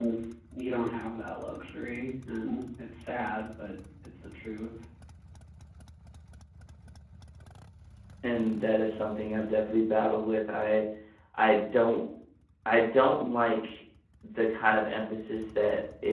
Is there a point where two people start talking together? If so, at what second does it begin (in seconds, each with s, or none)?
none